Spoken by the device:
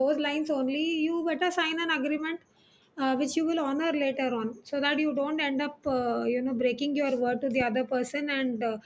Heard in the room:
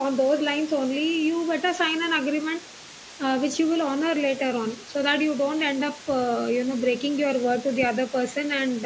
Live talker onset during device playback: none

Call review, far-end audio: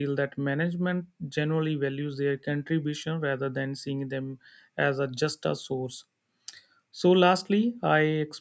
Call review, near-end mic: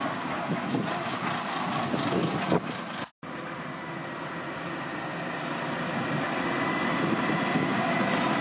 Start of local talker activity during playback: none

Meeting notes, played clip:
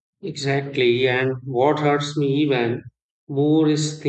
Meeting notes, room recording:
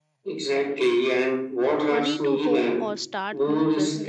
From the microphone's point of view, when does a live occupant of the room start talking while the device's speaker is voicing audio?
1.9 s

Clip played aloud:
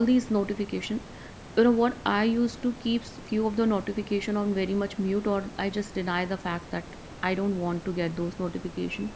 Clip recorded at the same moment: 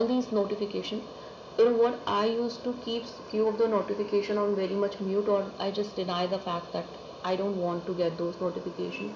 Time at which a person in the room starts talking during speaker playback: none

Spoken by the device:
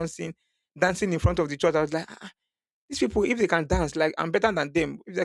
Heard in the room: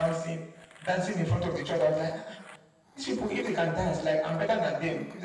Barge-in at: none

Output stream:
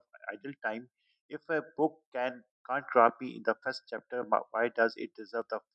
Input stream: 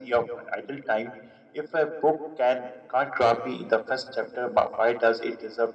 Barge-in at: none

